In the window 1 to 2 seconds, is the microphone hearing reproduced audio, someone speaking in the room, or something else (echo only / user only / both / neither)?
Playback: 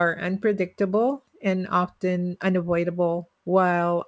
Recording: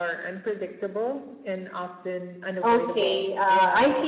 echo only